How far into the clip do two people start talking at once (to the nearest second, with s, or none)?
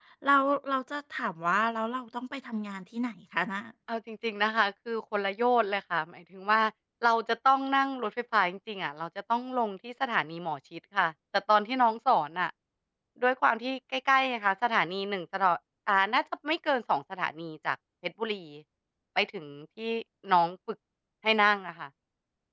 none